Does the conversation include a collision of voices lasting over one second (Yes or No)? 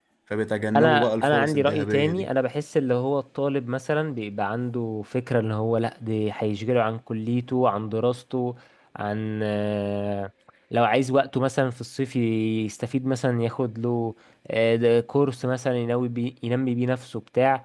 Yes